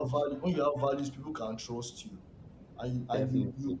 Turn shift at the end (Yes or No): No